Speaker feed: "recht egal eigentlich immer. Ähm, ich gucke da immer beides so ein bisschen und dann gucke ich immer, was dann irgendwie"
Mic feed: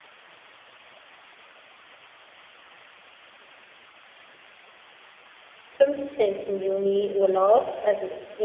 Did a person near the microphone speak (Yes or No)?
Yes